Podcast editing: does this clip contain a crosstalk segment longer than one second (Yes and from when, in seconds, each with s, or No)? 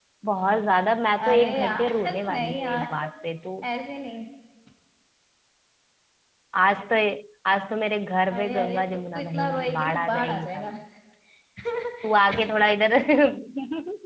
Yes, from 1.1 s